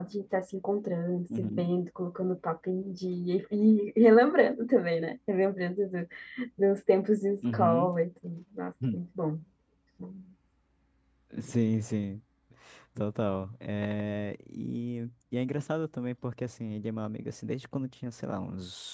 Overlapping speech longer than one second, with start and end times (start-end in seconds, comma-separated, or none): none